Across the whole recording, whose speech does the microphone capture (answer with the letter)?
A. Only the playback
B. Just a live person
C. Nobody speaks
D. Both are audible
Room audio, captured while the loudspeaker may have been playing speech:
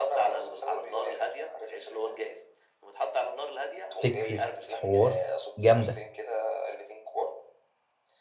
D